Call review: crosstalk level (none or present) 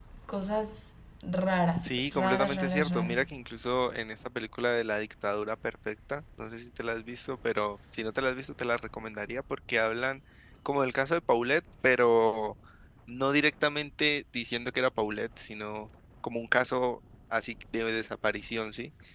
present